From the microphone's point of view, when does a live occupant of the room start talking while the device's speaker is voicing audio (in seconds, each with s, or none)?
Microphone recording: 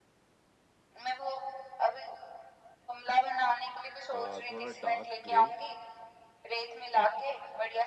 4.1 s